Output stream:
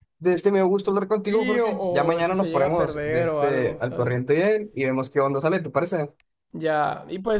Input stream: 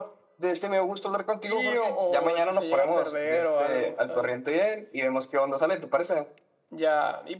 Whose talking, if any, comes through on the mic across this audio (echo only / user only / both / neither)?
echo only